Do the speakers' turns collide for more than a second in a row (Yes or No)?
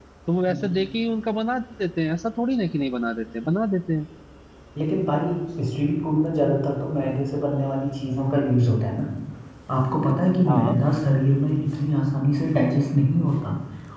No